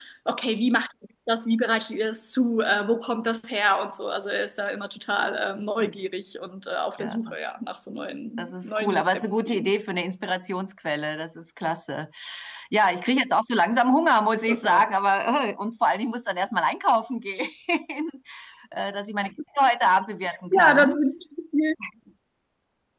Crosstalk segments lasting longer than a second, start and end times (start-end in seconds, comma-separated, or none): 8.4-9.7